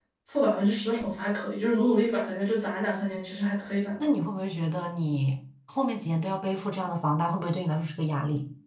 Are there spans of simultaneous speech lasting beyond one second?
No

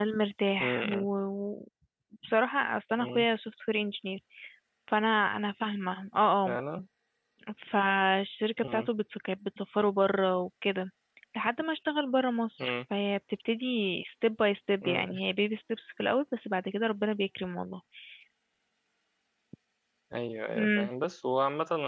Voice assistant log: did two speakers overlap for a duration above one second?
No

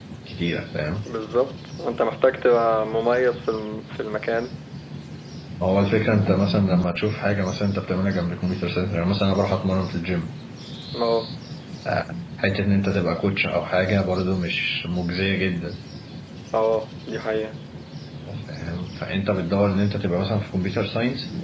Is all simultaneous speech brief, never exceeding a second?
Yes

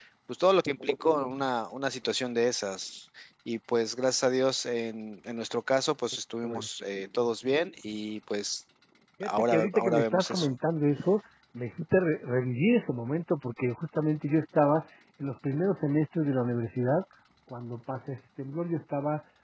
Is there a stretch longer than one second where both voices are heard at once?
Yes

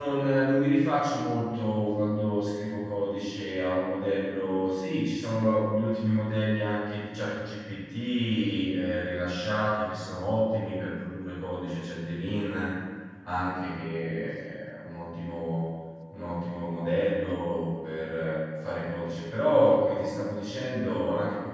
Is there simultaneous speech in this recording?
No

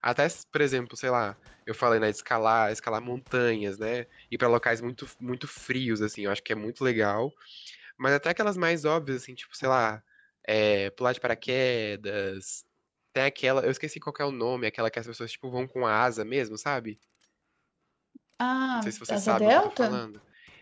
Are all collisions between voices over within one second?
No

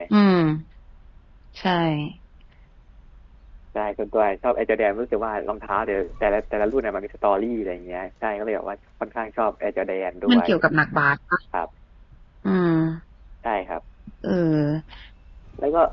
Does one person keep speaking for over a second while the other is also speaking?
No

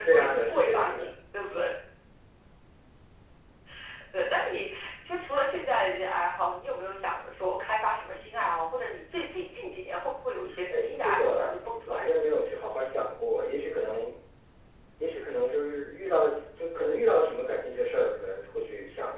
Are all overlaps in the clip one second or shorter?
No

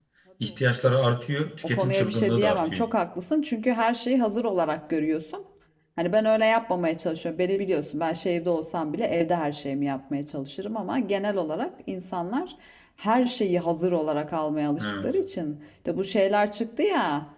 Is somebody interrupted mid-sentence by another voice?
Yes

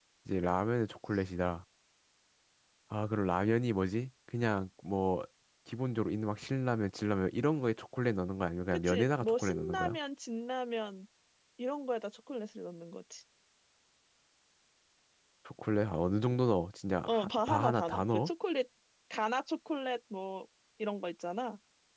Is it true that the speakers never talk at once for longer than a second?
No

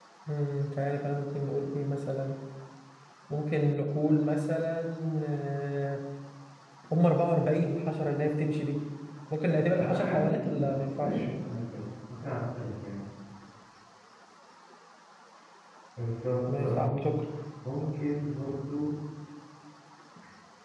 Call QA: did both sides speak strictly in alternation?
No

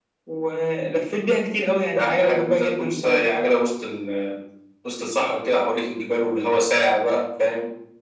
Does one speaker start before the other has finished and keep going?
Yes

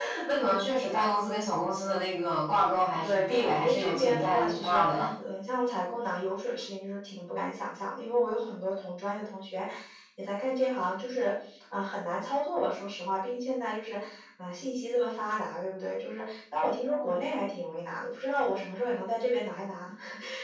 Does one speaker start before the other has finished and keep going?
Yes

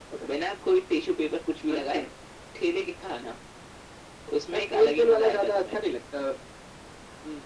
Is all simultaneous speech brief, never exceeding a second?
No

